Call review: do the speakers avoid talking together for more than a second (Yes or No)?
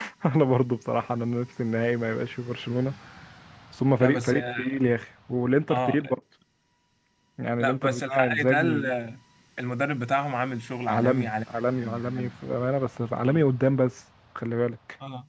No